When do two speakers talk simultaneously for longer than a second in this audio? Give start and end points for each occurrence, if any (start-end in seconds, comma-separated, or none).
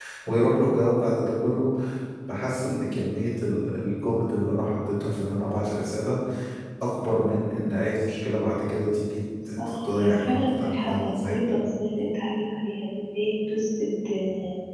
9.7-11.4